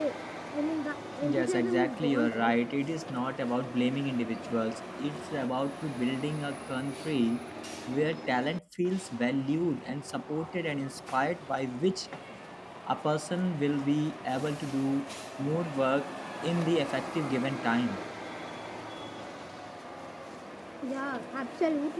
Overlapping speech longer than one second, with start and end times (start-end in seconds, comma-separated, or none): 1.2-2.5